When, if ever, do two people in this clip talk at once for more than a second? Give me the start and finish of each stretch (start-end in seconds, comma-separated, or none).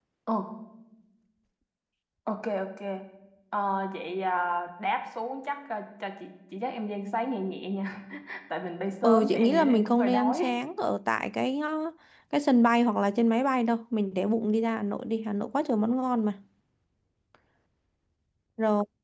9.0-10.4